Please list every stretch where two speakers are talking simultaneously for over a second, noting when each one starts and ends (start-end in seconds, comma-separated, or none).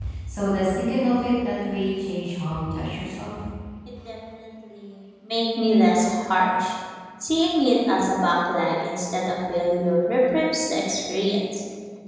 none